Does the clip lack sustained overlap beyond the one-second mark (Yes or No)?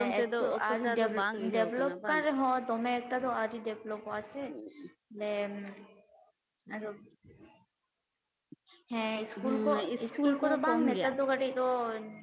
No